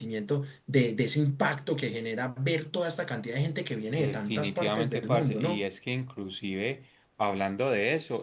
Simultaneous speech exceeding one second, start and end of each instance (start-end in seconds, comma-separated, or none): 3.9-5.6